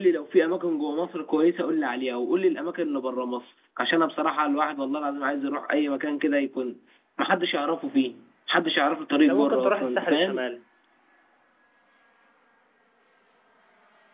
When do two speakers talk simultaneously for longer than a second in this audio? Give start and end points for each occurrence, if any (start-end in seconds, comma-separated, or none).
9.2-10.4